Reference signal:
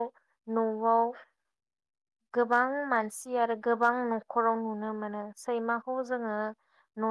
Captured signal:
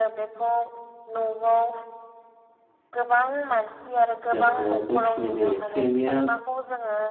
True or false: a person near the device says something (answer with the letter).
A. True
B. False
A